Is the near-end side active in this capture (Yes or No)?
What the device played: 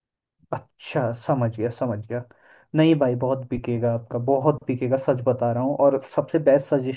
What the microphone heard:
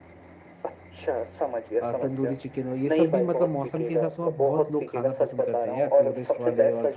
Yes